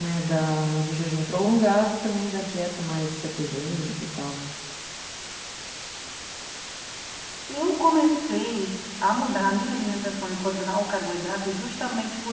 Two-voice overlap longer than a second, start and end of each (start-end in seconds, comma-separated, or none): none